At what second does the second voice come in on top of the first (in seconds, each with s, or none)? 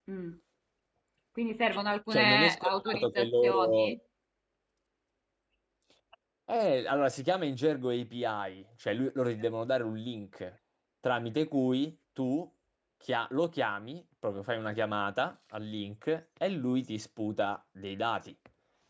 2.1 s